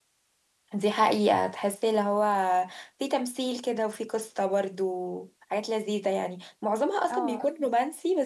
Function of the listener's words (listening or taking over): listening